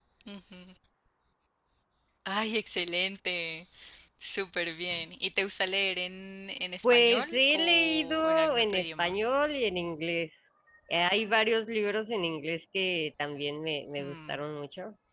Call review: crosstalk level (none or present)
present